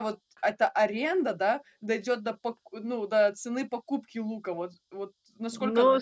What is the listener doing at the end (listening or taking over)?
taking over